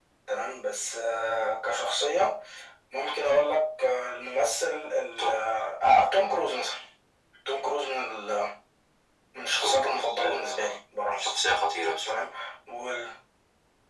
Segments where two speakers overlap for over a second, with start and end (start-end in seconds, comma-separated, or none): 9.6-10.8